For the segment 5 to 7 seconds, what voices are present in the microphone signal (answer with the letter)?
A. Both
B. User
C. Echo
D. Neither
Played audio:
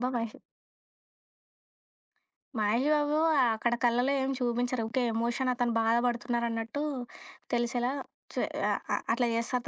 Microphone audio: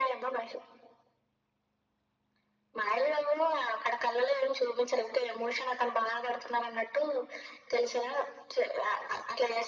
C